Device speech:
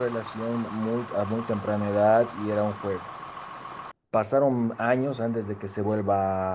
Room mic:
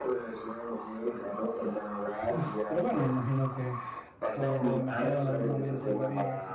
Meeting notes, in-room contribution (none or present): present